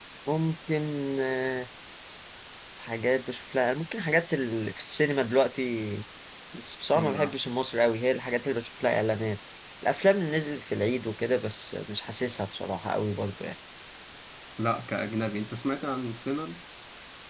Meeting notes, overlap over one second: none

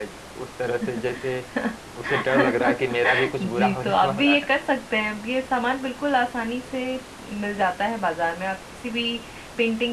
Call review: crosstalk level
present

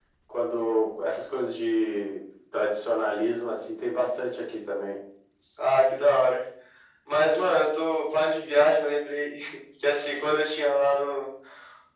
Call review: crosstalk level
none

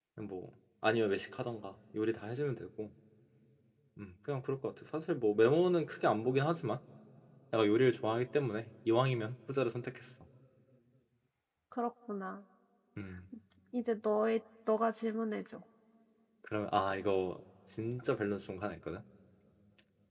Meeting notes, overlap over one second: none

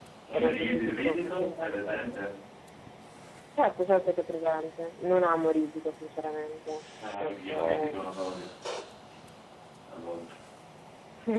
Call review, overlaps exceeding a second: present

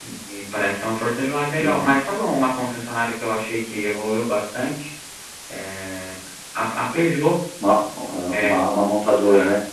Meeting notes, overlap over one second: none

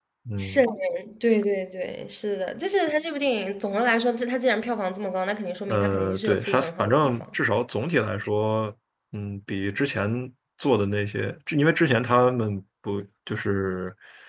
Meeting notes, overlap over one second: present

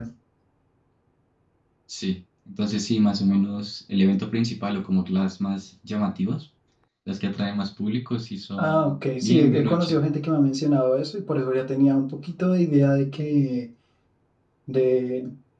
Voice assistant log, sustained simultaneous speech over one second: present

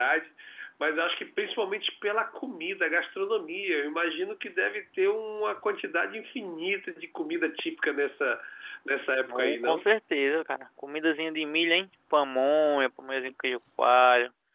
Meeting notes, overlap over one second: none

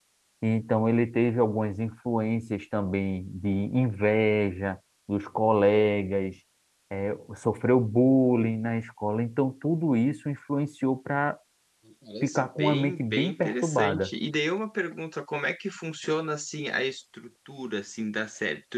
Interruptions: present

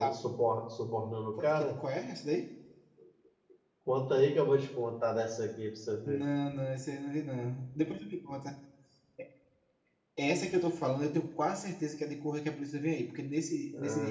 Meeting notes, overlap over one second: none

